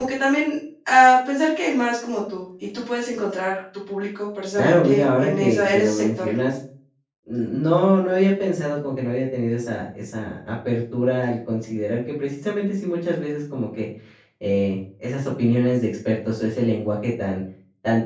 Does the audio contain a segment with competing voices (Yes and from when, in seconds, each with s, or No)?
Yes, from 4.6 s